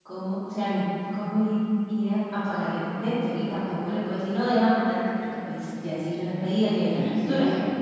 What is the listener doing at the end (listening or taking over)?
taking over